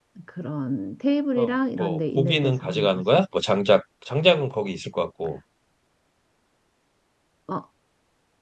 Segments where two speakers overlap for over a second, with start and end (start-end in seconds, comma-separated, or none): 1.4-3.2